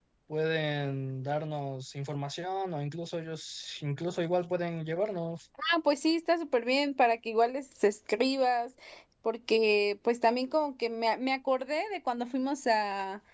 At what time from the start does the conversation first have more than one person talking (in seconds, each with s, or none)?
none